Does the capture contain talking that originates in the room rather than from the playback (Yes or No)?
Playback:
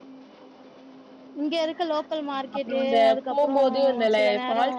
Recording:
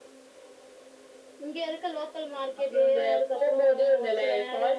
No